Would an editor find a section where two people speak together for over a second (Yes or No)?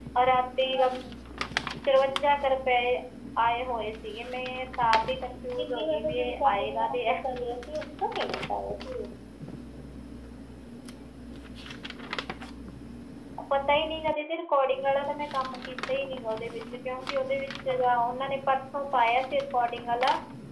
Yes